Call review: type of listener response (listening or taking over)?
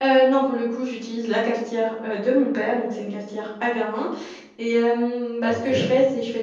listening